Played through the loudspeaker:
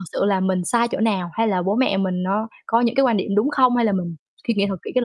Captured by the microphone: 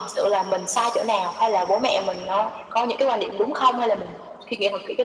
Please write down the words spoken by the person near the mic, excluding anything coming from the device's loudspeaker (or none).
none